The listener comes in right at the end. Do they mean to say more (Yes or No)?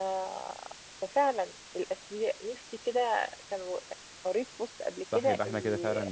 Yes